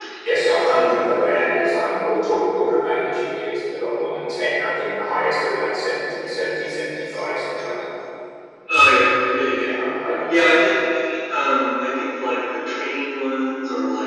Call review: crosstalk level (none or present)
none